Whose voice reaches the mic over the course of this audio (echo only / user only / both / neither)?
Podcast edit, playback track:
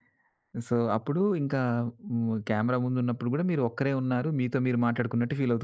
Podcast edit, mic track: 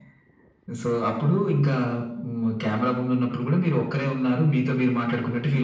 echo only